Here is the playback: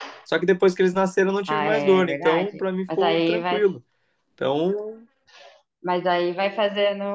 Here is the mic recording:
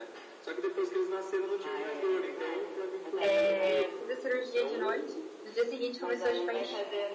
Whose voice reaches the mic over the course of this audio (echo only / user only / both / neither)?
both